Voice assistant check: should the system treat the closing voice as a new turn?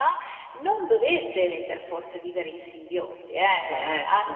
No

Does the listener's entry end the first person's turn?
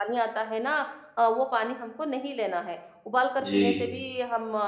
No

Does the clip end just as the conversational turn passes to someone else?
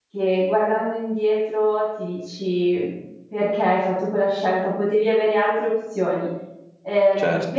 No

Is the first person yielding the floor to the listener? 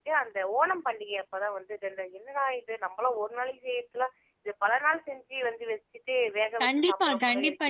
Yes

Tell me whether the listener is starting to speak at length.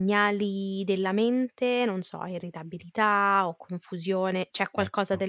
No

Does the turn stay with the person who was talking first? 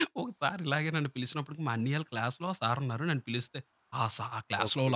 Yes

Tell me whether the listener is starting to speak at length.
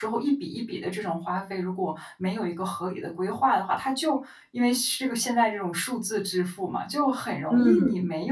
No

